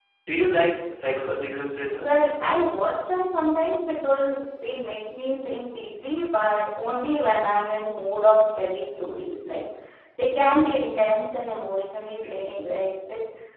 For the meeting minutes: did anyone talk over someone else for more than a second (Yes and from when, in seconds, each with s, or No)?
No